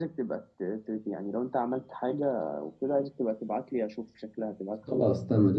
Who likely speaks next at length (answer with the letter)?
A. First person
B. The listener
B